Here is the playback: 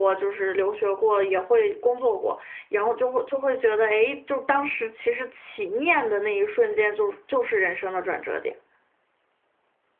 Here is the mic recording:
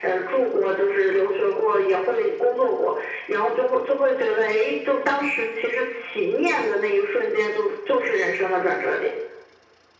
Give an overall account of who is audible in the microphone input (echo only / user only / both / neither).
echo only